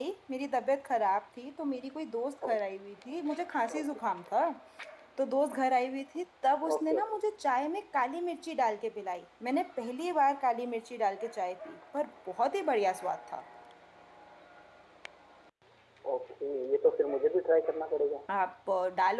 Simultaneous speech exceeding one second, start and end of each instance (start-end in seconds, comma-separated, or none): none